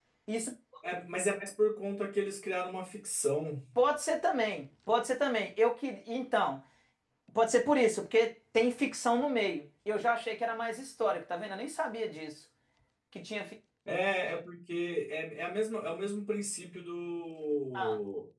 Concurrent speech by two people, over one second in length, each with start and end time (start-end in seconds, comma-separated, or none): none